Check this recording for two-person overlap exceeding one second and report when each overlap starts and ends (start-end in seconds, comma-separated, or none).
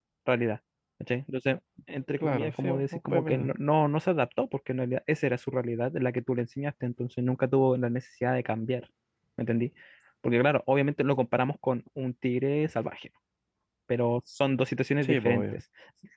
2.2-3.5